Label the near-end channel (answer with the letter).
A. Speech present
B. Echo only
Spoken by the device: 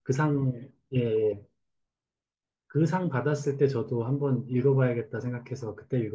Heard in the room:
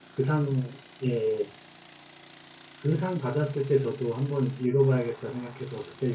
B